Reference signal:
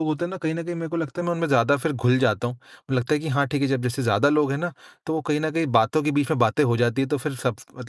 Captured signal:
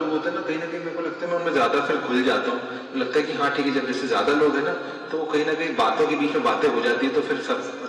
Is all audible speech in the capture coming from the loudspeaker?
Yes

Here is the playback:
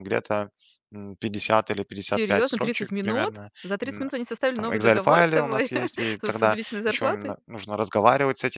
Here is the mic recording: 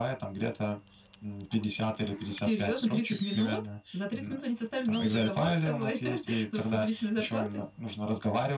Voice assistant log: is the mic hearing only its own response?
Yes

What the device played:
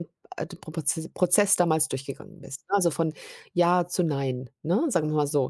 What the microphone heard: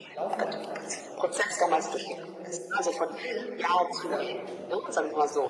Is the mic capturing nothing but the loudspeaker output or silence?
No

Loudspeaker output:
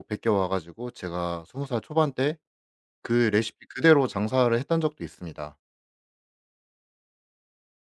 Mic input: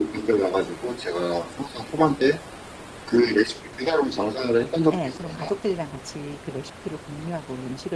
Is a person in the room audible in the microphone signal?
Yes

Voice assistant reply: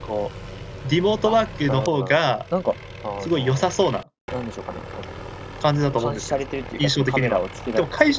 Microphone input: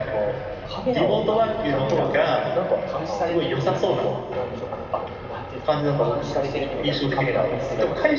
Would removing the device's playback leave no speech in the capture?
No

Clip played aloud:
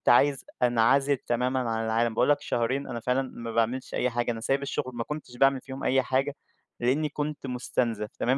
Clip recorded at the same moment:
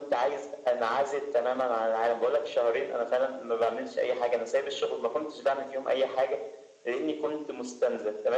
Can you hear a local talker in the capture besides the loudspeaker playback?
No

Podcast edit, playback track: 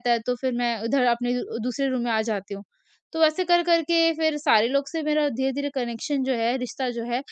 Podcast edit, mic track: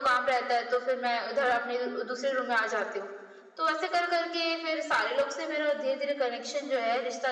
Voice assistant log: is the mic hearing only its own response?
Yes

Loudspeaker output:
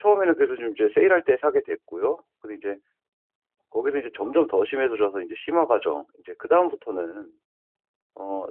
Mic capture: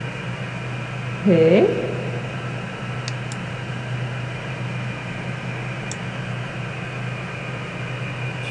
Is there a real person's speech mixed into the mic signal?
Yes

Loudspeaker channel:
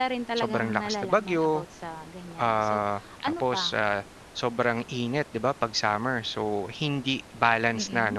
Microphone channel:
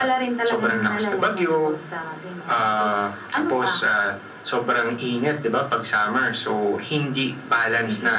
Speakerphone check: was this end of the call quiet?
Yes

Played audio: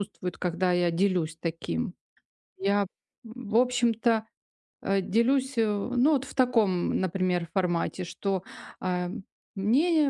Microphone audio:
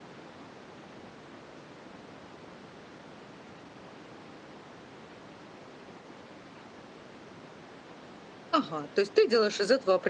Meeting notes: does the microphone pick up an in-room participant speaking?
Yes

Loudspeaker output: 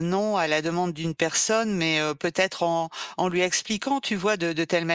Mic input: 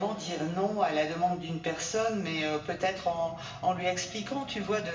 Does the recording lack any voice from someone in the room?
Yes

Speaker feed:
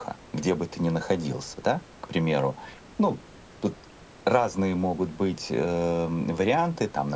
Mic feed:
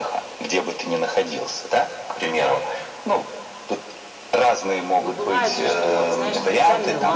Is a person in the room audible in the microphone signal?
Yes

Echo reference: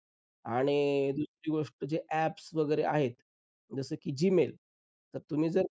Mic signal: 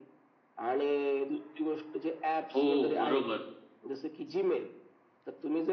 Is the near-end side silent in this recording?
No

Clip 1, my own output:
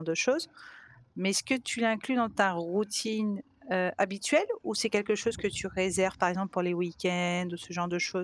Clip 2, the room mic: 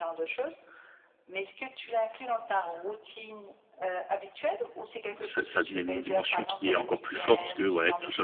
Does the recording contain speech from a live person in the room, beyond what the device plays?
Yes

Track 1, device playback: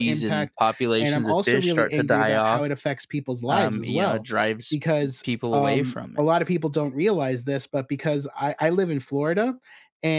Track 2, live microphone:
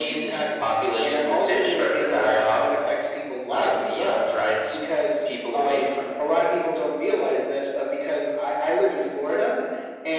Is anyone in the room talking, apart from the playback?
No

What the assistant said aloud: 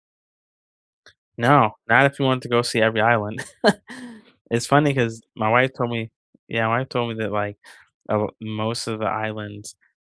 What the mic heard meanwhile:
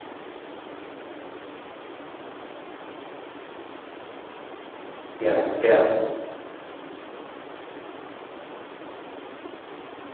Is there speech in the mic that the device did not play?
Yes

